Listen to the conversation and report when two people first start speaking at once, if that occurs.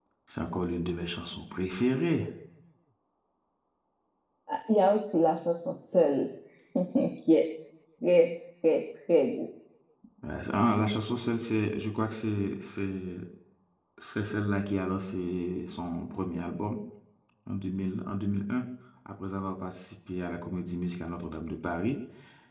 none

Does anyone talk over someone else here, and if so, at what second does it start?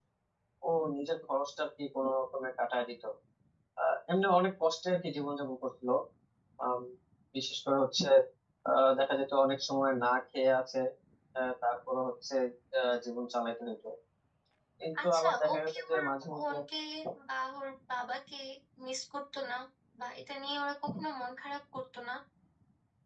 15.0 s

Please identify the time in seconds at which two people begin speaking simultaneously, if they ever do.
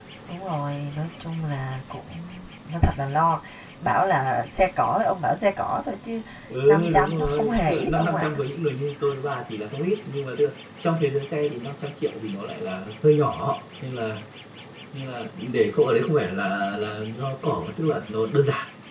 6.6 s

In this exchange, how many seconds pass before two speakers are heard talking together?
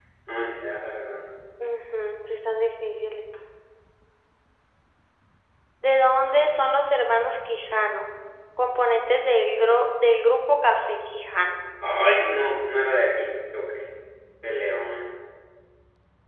none

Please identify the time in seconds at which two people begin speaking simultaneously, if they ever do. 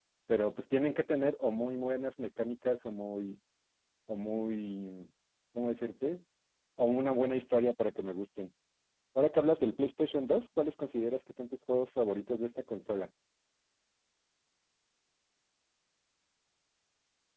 none

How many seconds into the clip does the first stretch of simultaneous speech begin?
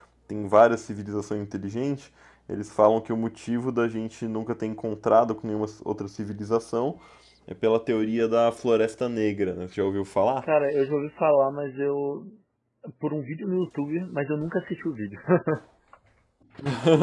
none

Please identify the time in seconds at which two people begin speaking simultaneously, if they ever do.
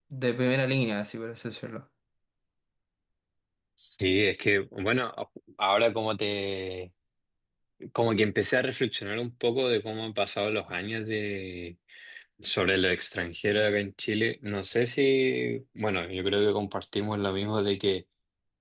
none

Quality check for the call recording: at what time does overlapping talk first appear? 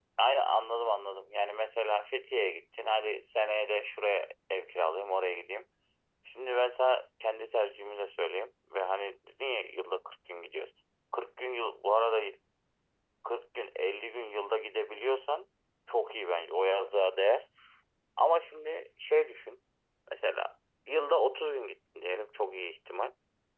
none

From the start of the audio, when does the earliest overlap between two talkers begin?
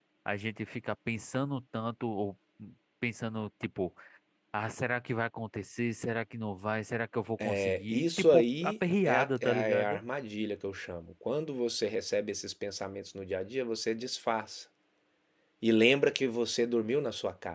7.4 s

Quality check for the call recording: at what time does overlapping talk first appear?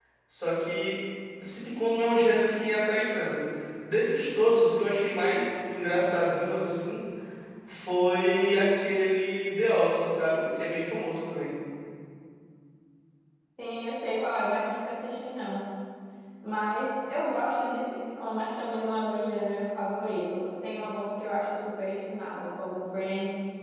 none

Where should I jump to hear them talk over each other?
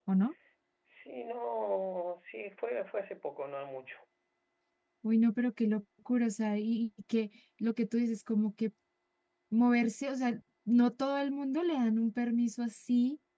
none

